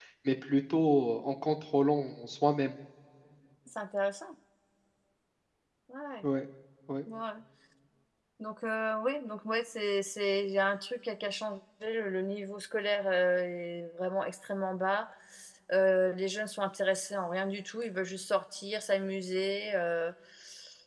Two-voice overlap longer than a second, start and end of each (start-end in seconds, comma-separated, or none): none